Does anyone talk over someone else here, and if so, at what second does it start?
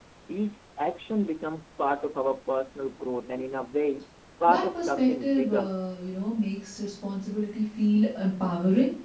4.5 s

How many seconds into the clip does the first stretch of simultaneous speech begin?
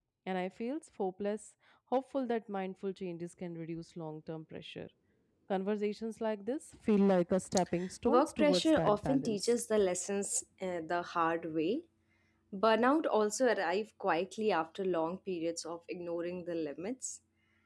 7.8 s

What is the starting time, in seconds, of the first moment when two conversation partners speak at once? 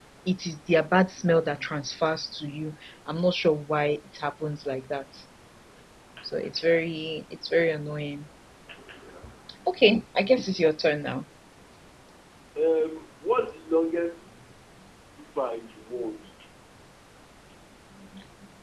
none

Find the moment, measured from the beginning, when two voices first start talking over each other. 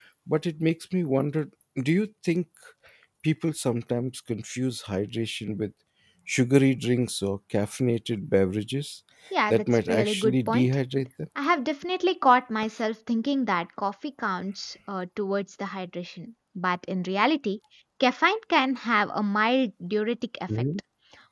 9.5 s

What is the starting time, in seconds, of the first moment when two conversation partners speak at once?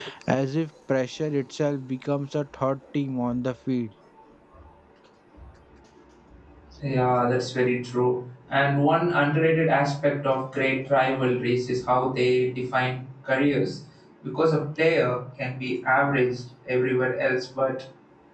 none

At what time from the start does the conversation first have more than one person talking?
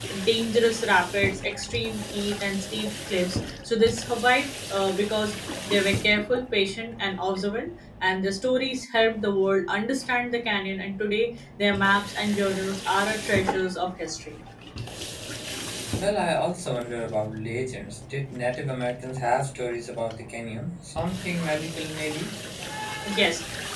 none

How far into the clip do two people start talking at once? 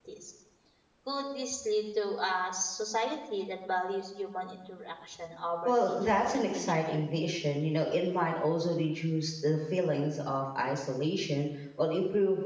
5.7 s

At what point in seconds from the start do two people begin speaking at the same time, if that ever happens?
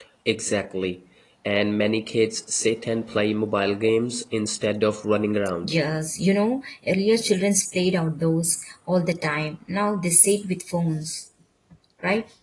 none

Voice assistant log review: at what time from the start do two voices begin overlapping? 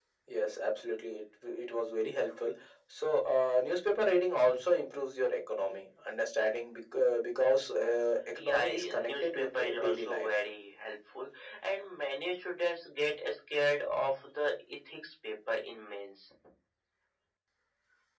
8.3 s

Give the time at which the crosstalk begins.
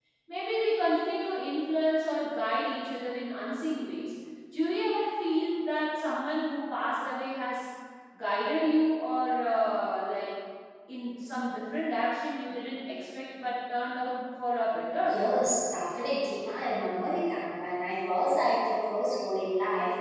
none

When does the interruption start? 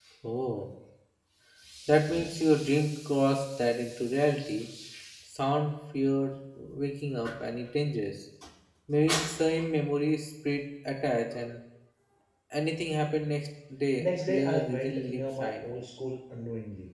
14.0 s

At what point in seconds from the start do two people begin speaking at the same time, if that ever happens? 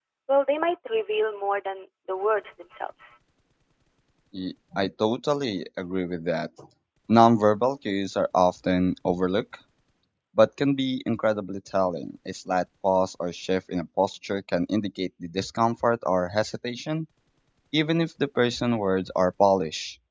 none

